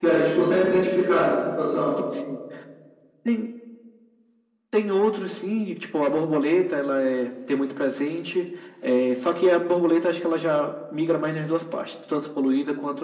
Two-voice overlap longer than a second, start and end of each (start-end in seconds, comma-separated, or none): none